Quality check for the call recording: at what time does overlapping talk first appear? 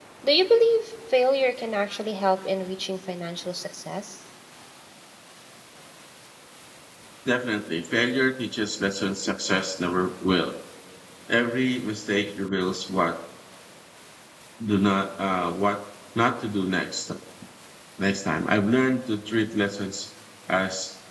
none

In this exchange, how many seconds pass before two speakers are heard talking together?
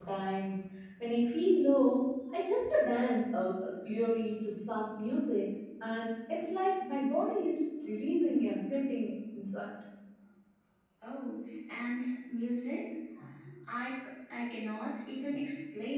none

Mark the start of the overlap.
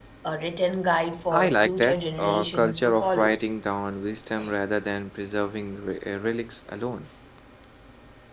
1.3 s

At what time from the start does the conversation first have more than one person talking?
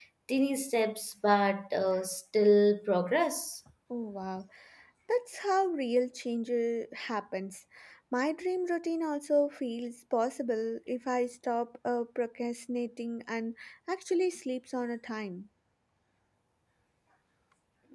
none

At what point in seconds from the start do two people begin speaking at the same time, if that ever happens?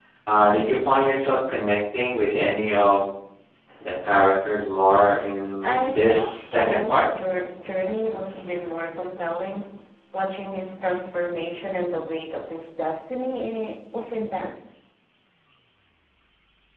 5.6 s

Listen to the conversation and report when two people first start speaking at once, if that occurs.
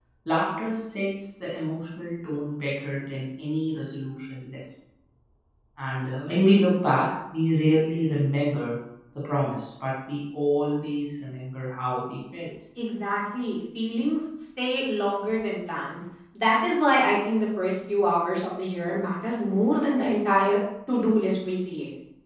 none

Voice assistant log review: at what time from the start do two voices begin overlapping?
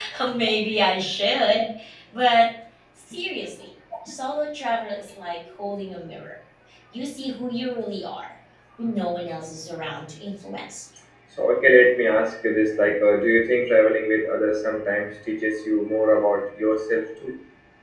none

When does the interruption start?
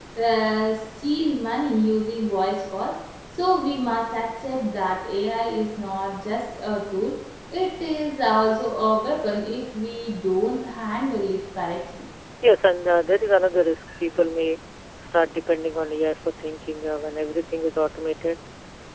none

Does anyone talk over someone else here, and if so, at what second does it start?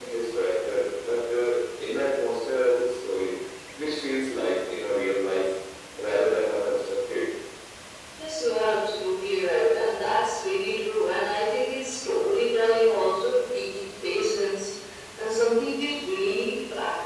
none

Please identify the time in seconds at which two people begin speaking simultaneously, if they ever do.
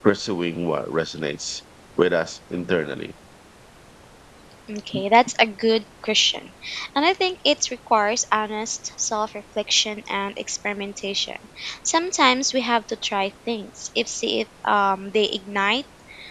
none

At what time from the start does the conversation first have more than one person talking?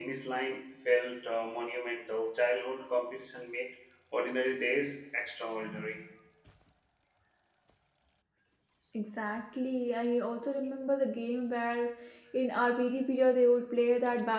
none

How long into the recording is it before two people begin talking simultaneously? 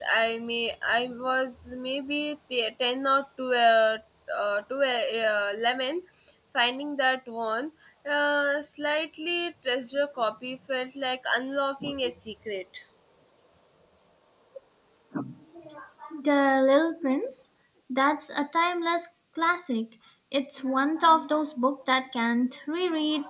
none

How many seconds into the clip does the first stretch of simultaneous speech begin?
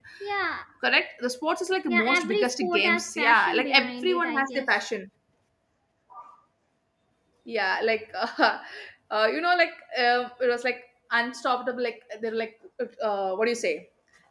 1.9 s

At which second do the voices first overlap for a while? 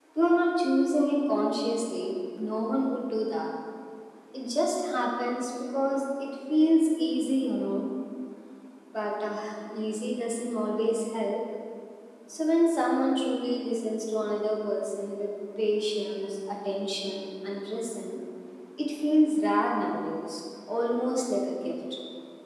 none

